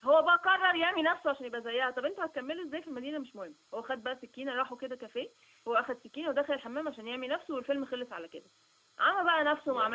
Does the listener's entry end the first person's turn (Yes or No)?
No